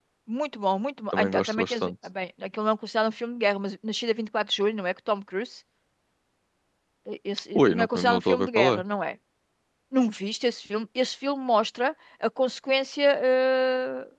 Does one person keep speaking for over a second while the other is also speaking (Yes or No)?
Yes